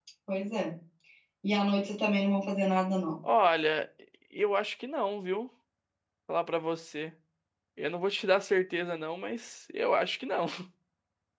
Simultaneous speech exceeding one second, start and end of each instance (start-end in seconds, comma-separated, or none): none